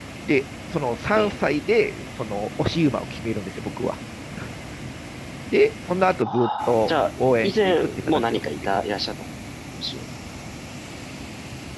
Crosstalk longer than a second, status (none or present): present